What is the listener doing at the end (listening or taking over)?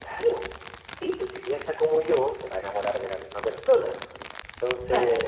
listening